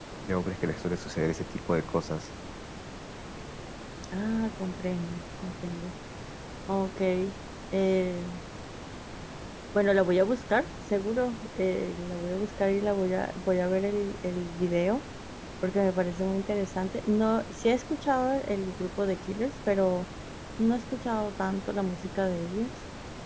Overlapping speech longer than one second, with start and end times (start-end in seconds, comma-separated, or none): none